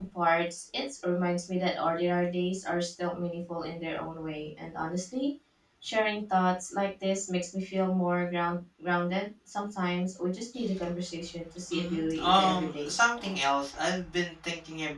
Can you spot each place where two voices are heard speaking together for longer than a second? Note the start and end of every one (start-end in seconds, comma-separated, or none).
11.7-12.9